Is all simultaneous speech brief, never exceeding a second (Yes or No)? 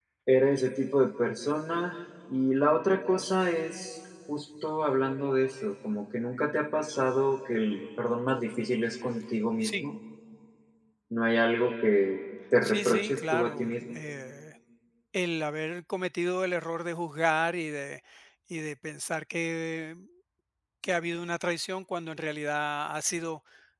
No